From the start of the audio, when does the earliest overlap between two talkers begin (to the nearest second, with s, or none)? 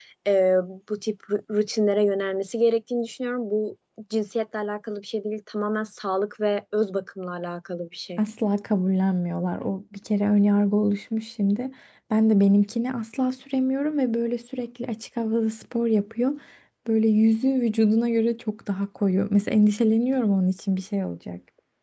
none